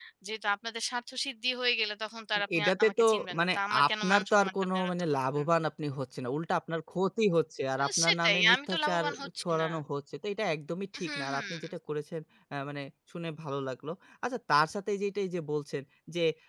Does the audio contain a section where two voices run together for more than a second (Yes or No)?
Yes